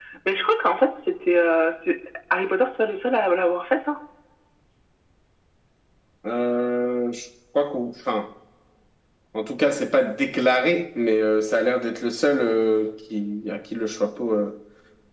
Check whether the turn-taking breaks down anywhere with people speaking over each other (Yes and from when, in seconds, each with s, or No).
No